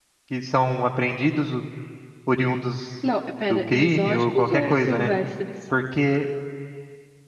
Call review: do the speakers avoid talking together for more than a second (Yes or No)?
No